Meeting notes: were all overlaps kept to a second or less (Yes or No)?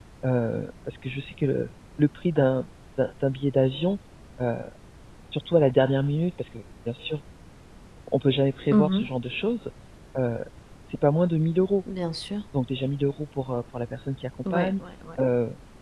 Yes